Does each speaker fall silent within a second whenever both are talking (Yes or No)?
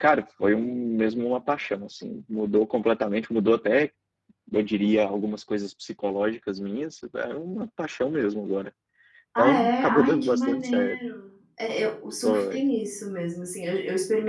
No